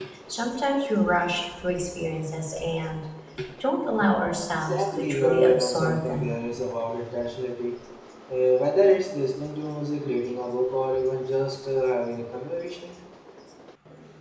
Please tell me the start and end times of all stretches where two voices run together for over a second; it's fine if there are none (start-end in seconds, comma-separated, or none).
4.6-6.3